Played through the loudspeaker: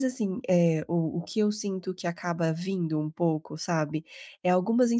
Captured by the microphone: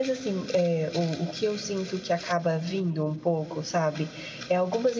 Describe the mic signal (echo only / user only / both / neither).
echo only